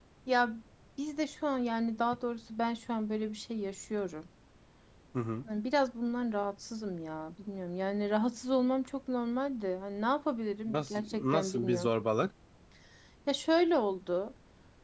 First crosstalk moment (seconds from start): 10.7 s

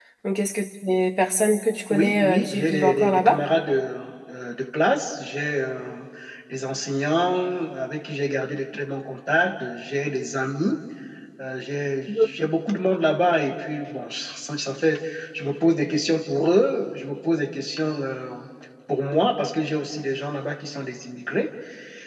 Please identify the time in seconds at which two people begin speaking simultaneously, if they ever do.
1.9 s

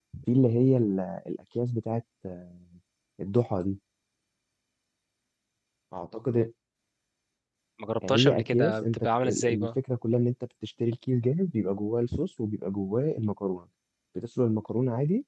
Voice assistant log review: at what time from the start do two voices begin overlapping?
8.1 s

